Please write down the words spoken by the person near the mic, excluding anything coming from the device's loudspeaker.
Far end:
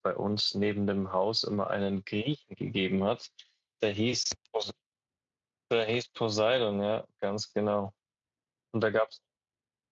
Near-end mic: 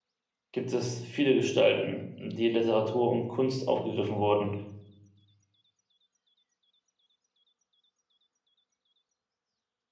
gibt es viele Gestalten, die in Literatur und Kunst aufgegriffen wurden,

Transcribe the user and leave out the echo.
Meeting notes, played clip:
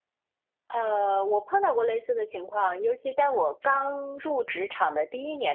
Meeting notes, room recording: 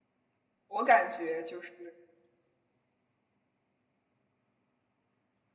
我感觉就是，

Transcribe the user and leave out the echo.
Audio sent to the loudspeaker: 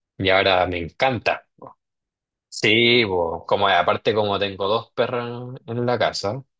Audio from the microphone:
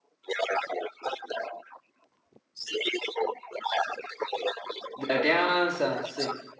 De la crianza, sí.

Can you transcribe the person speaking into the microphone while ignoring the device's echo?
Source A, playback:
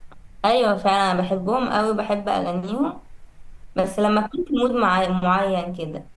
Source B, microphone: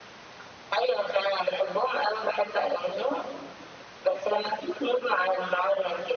none

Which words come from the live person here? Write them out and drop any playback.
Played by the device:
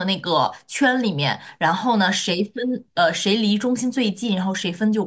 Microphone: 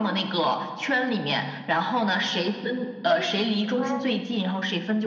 我也喜欢诶。

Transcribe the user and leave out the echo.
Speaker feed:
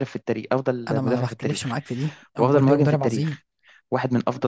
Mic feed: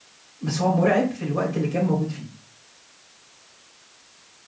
بس هو مرعب في الوقت اللي كان موجود فيه

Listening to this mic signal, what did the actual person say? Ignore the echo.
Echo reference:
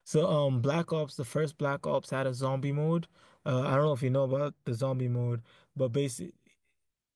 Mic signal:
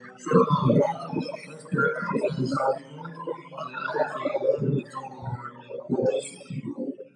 none

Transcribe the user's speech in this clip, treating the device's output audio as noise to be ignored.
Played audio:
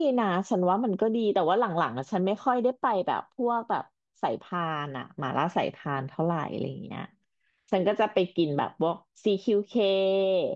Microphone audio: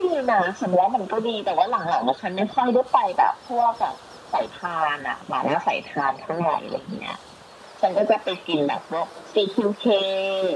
none

